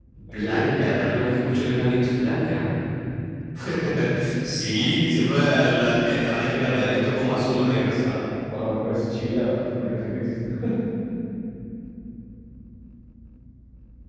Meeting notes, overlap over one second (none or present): present